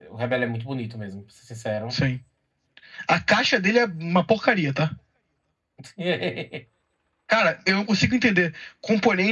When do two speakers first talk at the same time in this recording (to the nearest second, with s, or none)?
none